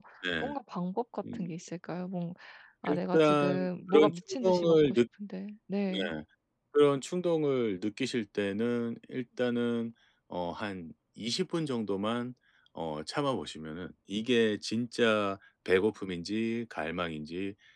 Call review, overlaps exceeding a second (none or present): present